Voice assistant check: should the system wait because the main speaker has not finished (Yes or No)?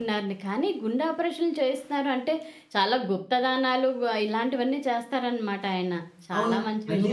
No